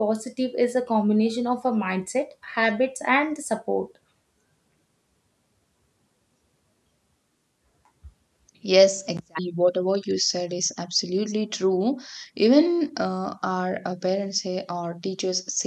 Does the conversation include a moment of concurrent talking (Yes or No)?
No